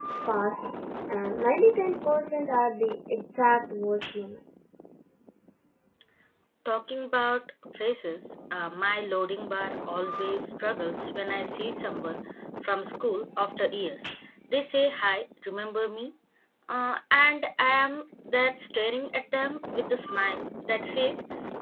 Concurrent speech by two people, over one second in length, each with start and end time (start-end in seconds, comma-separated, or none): none